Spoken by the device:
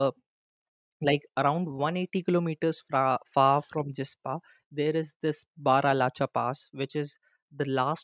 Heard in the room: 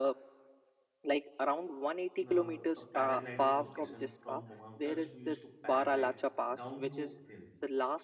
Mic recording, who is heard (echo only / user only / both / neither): both